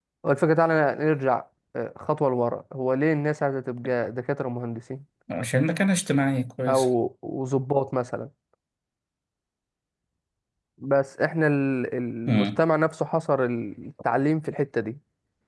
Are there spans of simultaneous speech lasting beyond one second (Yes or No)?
No